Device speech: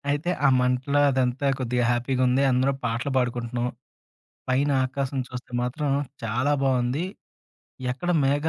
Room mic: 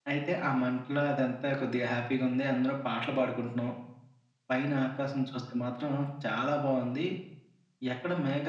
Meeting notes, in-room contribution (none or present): none